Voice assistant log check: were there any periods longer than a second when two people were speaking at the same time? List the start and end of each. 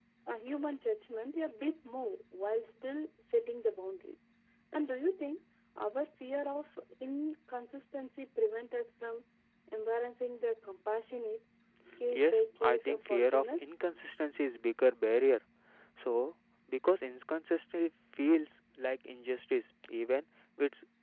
12.1-13.7

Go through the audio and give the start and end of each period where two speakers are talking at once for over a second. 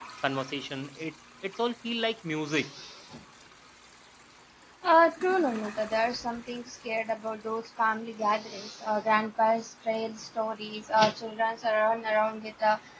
none

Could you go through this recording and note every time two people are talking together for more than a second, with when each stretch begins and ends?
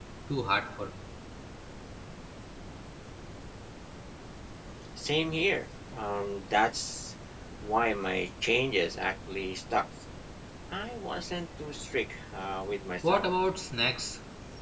none

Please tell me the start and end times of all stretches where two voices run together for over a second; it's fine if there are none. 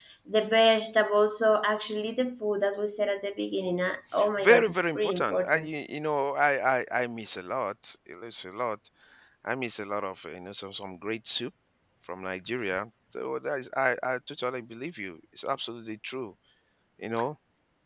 4.4-5.7

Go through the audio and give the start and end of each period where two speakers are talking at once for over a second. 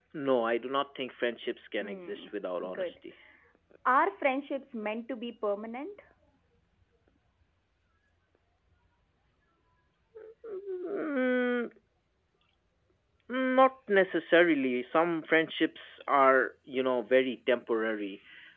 none

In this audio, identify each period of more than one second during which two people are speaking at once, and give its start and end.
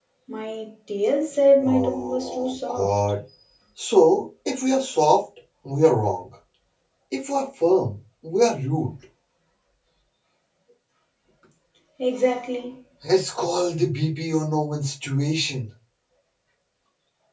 1.6-2.9

